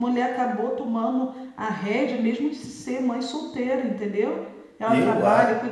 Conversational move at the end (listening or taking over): listening